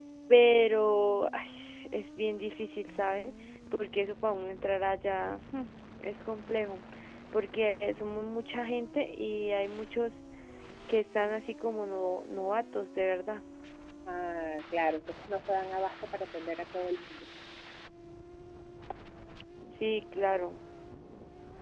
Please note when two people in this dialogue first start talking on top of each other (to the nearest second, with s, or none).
none